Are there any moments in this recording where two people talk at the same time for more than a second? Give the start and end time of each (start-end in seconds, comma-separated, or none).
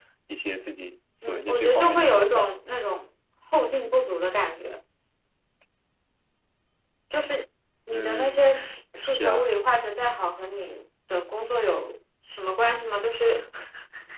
1.2-2.5